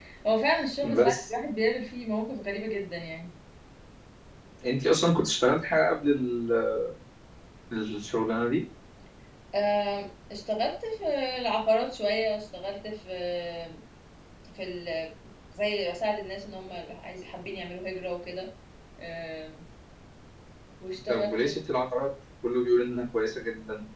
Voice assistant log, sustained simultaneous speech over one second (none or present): none